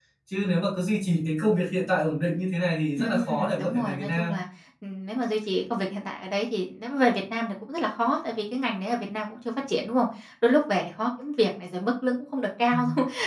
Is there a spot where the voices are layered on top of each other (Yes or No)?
Yes